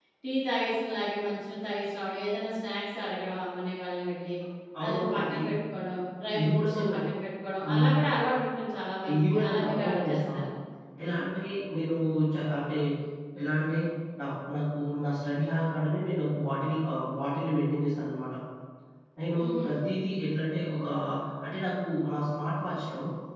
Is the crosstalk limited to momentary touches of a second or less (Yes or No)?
No